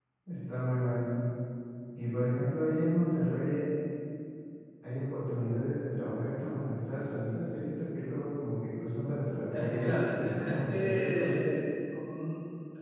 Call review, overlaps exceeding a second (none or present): present